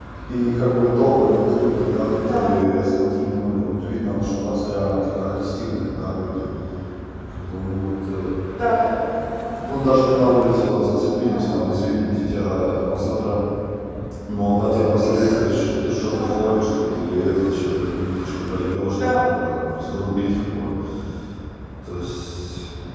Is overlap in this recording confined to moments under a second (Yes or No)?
Yes